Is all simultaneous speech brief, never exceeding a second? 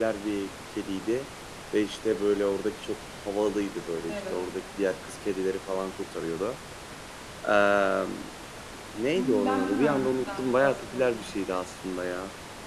No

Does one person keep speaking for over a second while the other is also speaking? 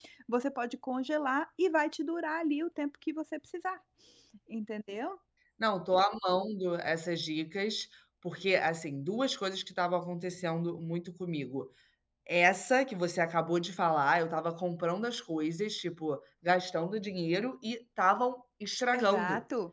No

